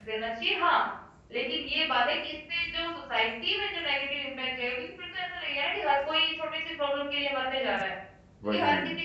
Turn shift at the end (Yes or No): No